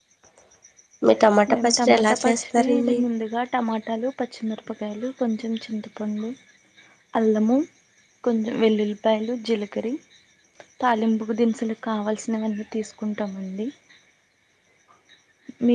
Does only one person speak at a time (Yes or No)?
No